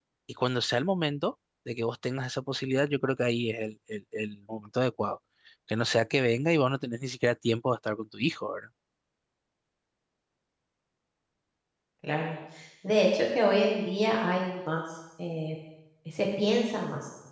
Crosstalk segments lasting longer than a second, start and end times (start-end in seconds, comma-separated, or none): none